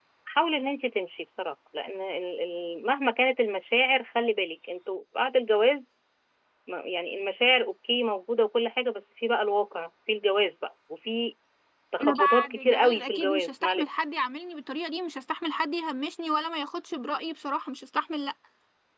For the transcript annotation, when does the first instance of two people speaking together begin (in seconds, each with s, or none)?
12.0 s